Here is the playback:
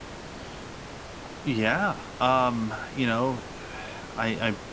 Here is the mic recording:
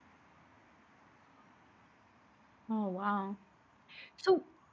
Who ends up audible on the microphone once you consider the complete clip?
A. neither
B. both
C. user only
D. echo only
C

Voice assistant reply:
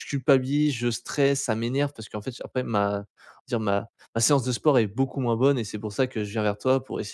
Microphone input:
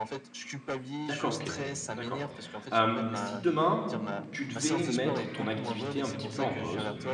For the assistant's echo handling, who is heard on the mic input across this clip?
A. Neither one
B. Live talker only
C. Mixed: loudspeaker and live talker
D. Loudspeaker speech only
C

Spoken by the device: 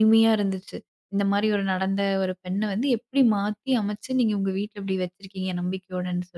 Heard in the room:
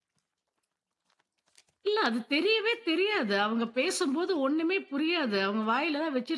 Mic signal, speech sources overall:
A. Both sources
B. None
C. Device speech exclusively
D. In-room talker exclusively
D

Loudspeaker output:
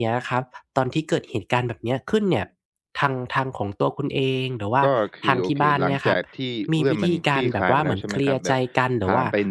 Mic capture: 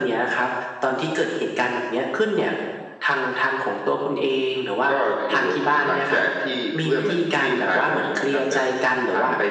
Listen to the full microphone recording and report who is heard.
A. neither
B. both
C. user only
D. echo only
D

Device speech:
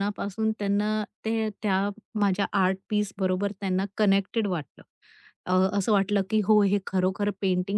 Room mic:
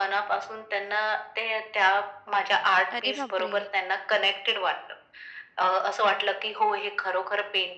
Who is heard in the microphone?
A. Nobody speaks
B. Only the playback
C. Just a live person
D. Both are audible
D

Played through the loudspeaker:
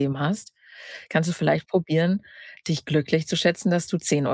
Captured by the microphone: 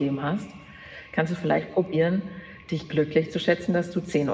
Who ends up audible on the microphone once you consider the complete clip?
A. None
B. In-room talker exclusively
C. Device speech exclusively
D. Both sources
C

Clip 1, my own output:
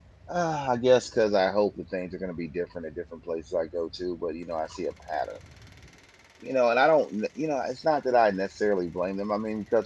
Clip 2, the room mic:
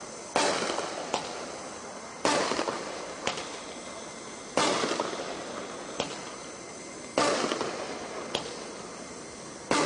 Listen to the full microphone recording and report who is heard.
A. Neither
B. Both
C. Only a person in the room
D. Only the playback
A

